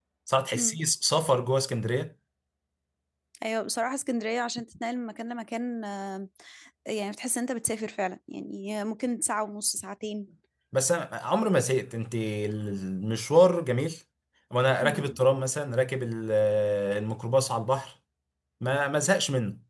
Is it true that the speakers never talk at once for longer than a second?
Yes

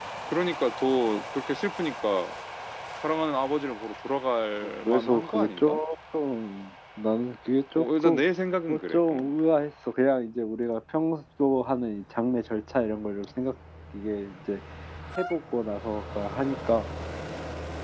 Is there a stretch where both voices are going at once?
Yes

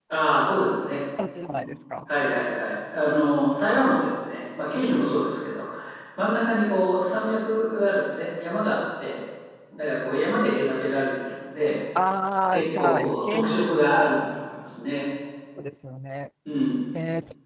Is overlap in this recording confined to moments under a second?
No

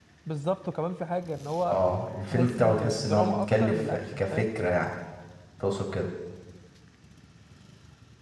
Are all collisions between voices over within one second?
No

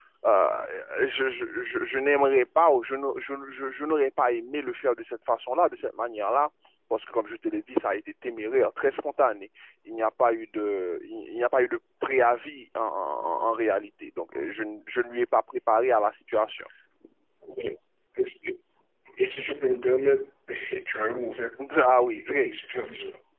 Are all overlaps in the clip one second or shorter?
Yes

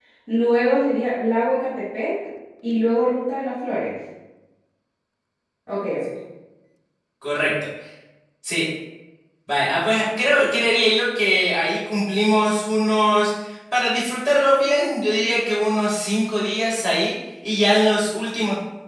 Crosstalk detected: No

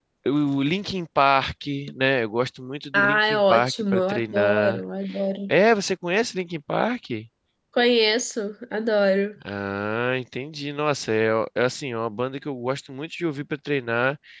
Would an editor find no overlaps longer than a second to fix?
No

